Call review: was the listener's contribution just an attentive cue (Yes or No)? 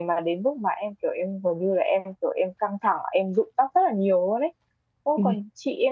Yes